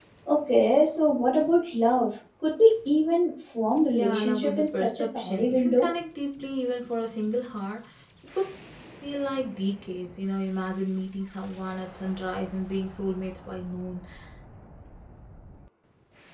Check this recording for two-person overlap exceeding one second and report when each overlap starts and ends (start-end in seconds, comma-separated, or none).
3.9-5.9